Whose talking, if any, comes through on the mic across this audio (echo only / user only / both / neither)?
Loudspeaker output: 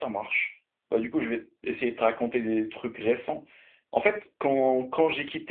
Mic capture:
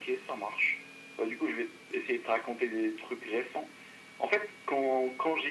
echo only